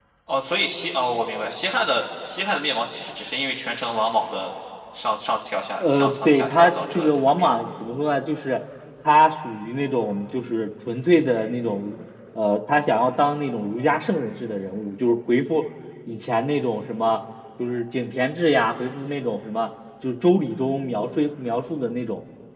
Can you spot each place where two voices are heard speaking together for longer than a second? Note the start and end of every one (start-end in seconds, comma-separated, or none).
5.8-7.7